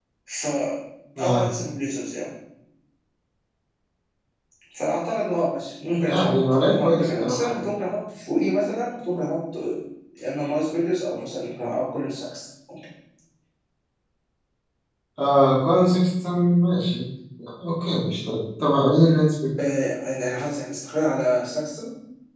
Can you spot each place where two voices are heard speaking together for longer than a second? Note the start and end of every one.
6.1-7.6

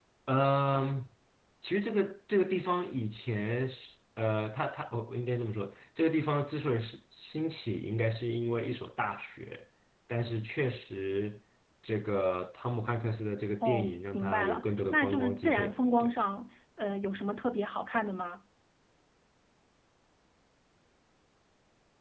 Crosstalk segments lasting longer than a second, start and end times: 13.6-16.1

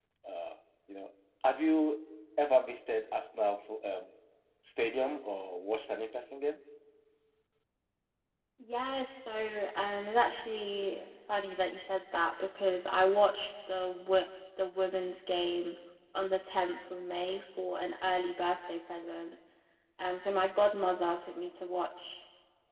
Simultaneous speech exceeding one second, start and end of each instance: none

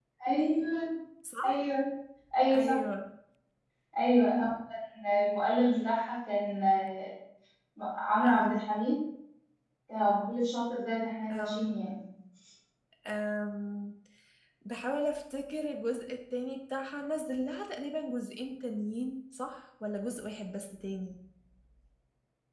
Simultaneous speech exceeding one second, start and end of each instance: none

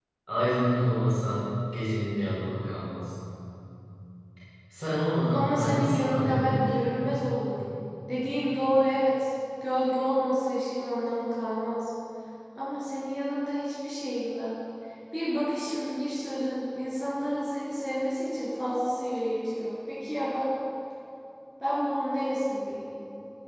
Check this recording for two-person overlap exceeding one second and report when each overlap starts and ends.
5.3-6.8

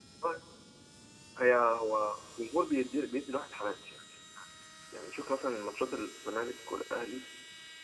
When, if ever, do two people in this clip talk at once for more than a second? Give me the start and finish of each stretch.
none

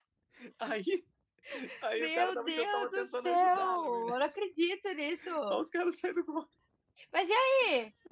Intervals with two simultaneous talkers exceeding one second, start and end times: 1.9-4.3

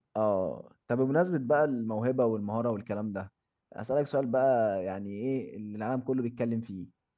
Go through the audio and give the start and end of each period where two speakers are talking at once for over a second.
none

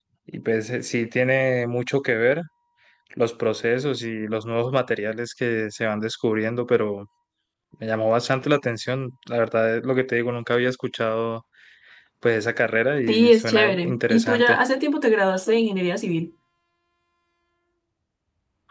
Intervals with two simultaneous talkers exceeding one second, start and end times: 13.1-14.6

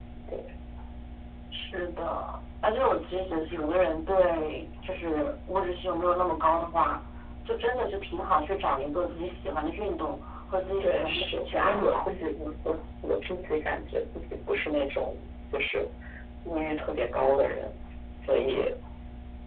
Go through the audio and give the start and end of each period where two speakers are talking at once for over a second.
10.8-12.1

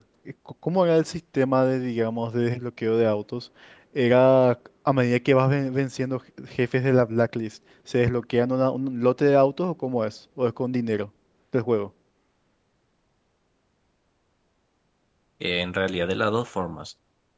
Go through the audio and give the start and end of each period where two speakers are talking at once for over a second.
none

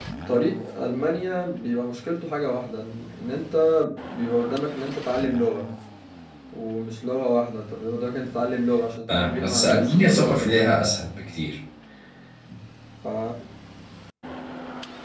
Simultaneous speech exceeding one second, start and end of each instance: 9.1-10.8

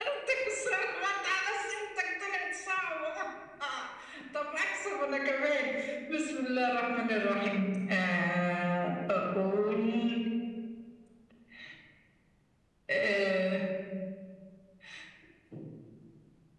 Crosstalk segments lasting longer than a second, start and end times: none

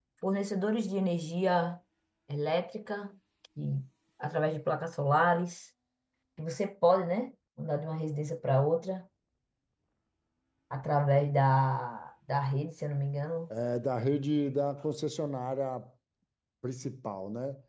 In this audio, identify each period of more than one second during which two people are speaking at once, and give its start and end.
none

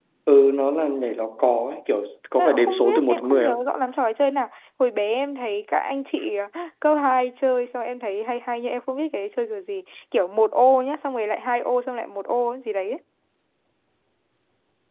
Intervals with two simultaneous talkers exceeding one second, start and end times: 2.4-3.7

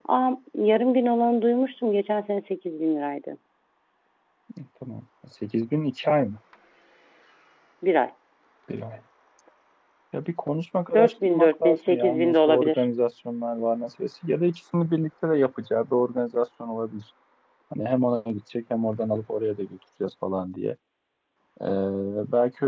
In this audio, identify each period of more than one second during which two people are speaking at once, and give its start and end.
10.9-12.8

